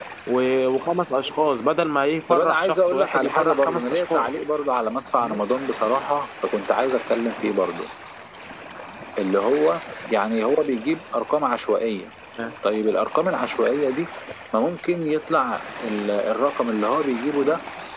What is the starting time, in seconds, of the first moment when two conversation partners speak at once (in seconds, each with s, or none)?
2.3 s